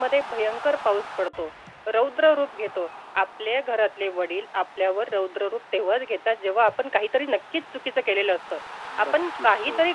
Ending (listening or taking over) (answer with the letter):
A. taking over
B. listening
B